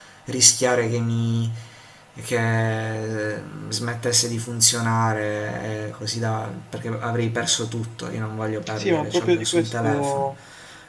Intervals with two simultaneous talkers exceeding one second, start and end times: 8.7-10.3

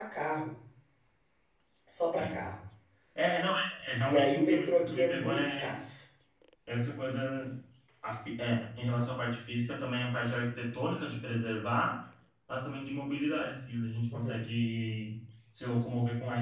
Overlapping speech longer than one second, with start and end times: 4.0-5.7

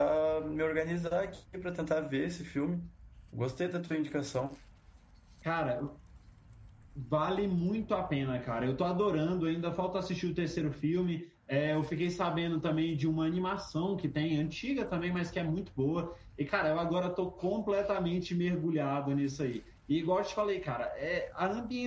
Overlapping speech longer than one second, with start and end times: none

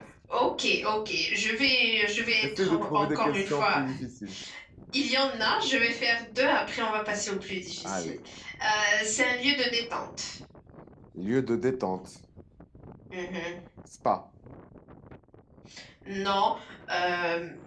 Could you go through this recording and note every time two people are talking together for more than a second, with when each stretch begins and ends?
2.4-3.8

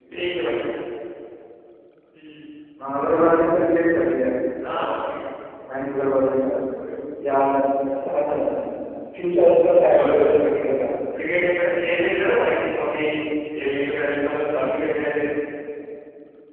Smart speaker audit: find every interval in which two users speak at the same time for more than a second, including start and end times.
none

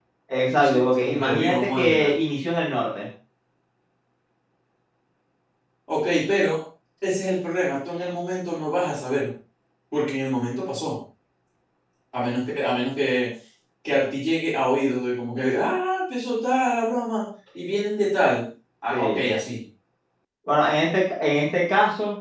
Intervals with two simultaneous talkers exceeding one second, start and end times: 0.6-2.1

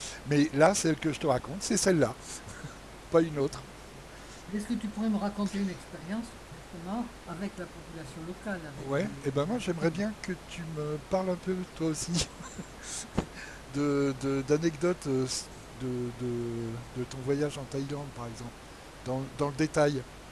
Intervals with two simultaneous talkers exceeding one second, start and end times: 8.8-10.0

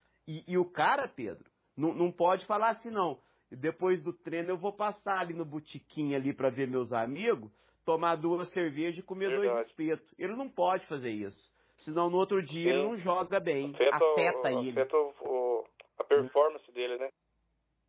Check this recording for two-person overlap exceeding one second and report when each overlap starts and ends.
13.6-14.8

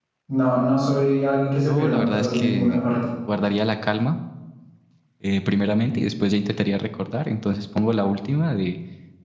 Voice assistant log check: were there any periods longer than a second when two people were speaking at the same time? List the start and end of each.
1.6-2.9

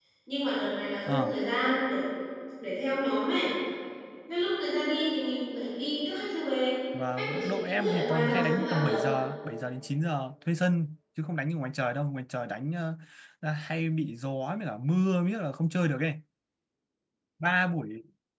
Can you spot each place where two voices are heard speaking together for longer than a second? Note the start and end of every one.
7.2-9.0

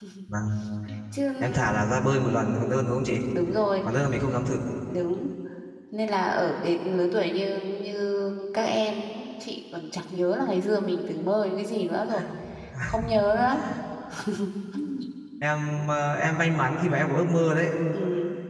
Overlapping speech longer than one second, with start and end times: none

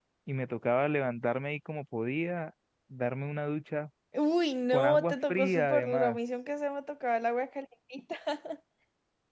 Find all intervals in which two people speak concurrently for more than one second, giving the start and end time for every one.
4.7-6.2

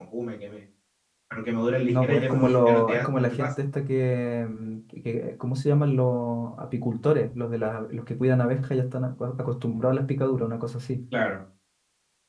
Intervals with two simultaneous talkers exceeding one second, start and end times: 1.9-3.5

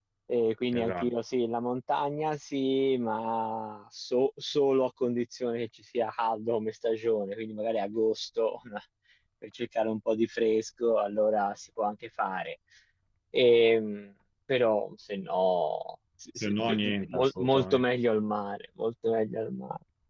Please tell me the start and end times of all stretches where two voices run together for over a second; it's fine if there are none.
16.4-17.8

